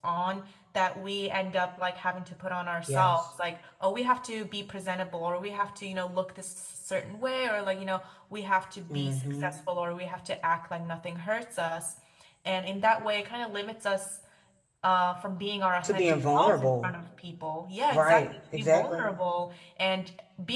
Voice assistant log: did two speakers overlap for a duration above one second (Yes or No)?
Yes